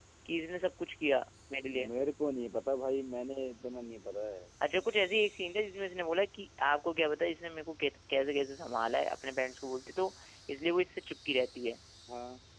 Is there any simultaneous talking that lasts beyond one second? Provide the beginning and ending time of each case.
none

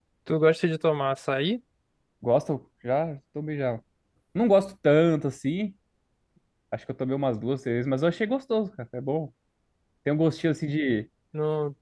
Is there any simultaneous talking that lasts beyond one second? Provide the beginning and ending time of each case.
none

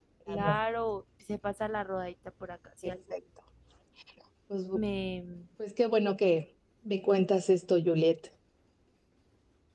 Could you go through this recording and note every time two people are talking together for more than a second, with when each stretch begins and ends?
none

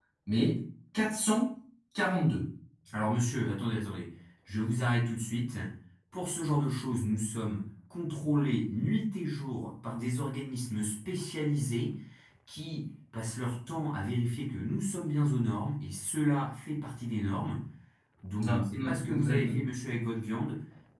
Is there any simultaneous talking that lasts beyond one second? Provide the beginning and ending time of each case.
18.4-19.7

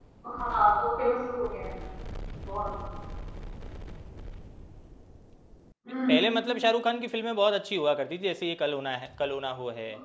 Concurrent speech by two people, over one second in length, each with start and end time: none

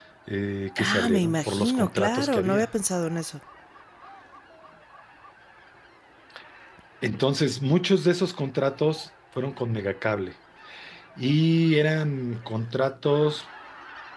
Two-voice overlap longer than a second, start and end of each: 0.8-2.7

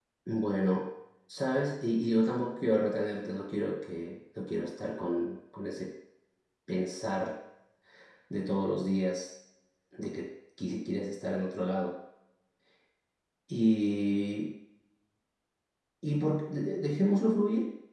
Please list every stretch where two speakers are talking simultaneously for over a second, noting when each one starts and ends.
none

